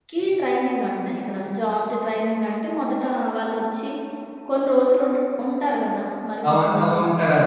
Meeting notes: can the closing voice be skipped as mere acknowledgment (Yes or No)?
No